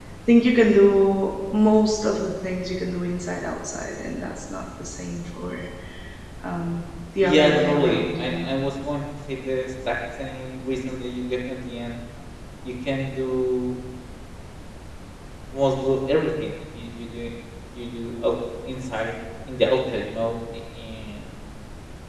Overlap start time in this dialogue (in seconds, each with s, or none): 7.2 s